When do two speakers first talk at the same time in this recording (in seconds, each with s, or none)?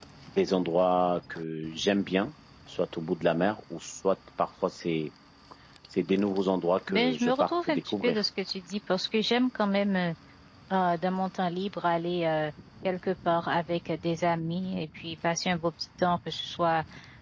6.9 s